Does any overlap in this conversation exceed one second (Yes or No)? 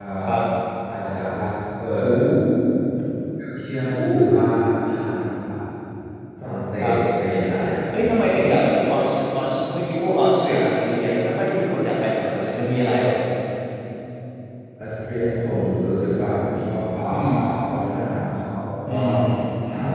No